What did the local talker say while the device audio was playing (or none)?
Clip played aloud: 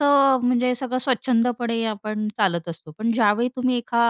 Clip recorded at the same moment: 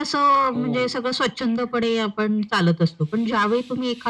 हो.